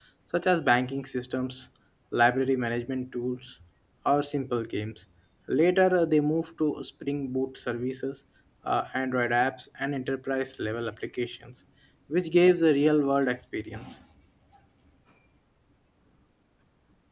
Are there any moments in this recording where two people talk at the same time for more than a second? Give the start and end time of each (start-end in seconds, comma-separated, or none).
none